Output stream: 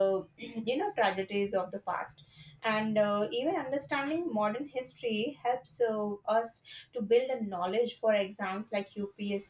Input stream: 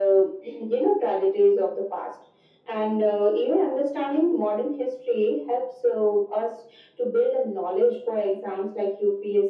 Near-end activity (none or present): none